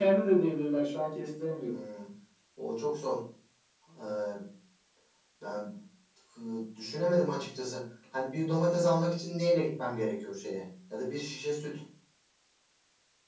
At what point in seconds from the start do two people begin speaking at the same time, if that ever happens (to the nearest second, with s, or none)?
none